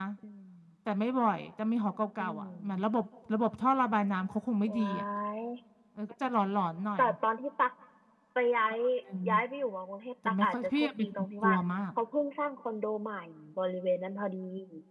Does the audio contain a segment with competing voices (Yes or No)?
Yes